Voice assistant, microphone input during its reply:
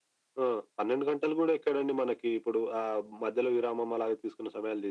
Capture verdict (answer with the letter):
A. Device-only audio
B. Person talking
A